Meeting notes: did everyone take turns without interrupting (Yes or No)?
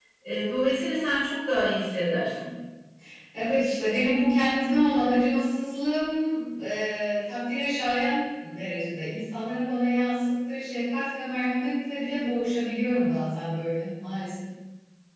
Yes